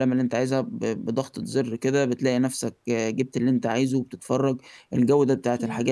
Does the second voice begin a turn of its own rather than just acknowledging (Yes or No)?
No